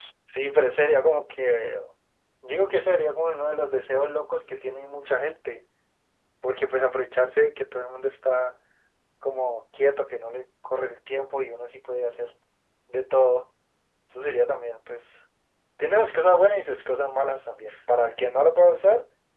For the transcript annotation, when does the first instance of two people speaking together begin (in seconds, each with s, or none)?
none